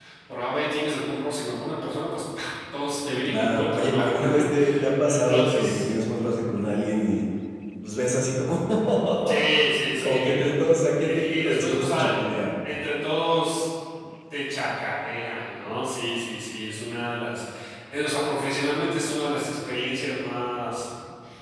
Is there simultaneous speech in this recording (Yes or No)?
Yes